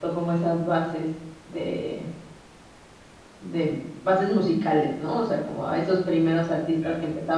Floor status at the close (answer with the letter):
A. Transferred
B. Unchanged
B